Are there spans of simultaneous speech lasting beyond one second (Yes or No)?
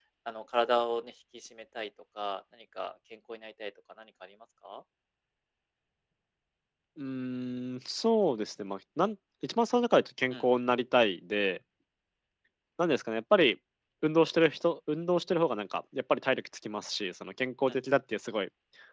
No